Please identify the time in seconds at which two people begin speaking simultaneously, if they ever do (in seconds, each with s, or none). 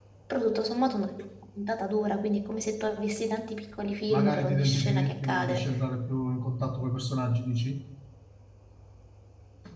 4.1 s